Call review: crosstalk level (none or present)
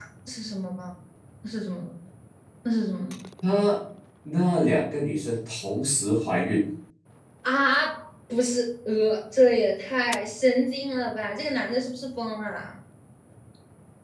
none